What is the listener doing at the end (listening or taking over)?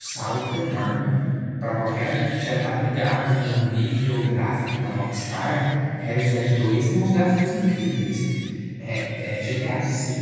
listening